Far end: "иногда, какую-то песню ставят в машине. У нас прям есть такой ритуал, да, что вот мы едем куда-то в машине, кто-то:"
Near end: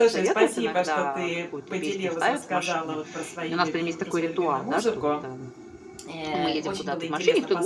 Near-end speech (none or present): present